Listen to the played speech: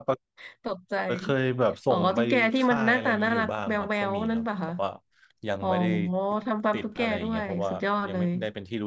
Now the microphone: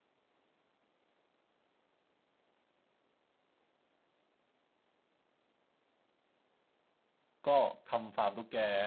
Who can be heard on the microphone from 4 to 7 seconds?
neither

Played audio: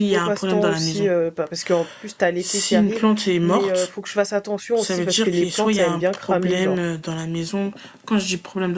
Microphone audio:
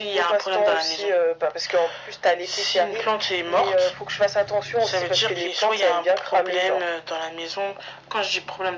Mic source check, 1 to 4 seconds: echo only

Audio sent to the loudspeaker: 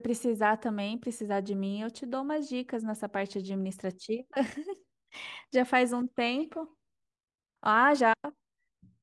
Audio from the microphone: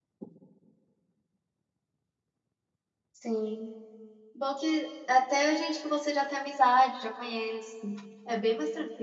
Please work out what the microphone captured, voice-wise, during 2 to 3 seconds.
neither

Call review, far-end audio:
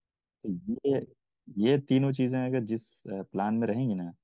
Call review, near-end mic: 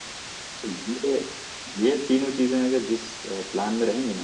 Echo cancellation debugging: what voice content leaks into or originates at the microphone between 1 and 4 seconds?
echo only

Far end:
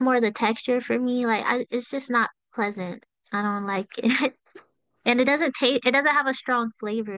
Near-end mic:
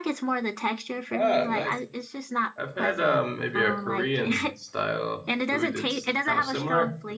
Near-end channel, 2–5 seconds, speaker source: both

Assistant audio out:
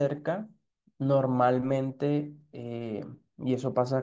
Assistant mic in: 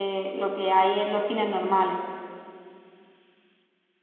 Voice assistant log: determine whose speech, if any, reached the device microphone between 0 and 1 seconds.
user only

